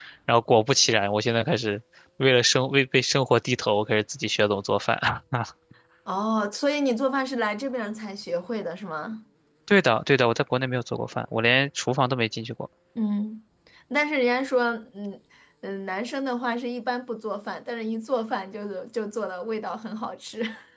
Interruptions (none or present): none